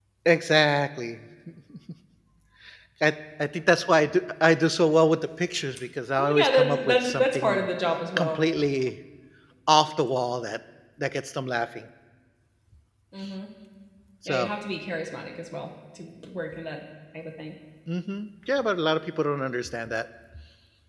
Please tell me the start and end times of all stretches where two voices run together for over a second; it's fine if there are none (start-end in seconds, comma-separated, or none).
6.2-7.7